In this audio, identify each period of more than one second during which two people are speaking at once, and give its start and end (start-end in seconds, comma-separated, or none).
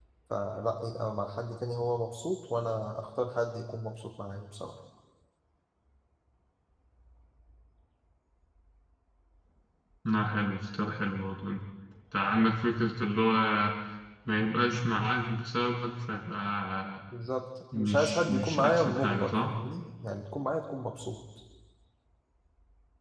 17.8-19.6